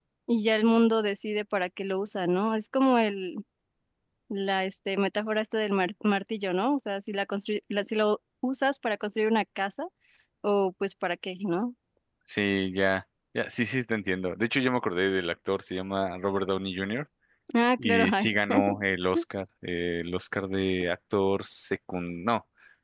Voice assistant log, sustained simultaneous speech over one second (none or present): none